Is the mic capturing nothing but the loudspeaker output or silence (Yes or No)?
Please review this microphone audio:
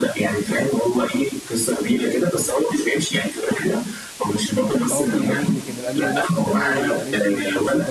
No